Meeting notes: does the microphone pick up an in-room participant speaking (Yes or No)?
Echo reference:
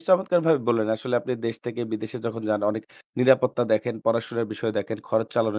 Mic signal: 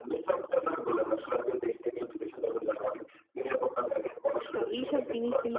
Yes